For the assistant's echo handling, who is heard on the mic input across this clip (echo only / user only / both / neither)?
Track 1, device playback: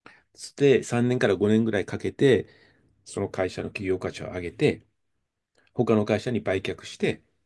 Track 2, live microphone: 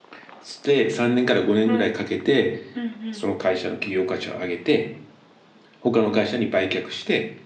both